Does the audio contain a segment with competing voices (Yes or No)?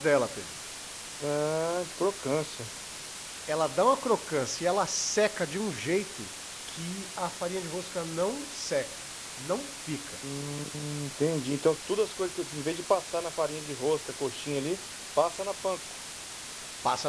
No